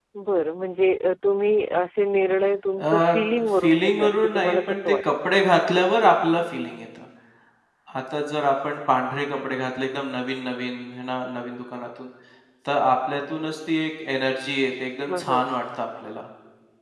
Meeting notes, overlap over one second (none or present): present